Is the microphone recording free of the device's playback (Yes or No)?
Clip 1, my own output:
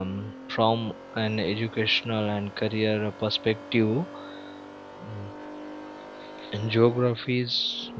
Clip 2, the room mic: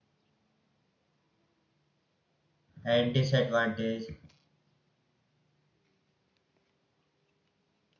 Yes